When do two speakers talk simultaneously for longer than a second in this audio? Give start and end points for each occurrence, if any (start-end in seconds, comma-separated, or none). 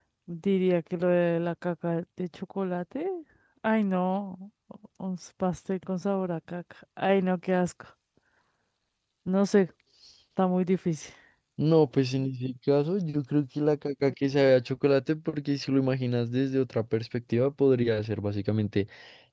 none